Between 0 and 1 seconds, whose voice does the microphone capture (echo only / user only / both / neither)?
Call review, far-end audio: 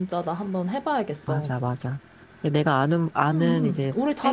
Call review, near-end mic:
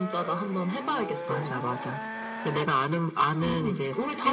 echo only